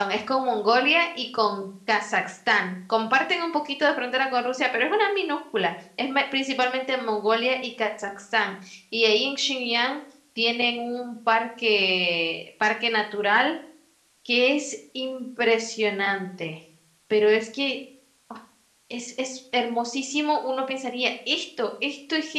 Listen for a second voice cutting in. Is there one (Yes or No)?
No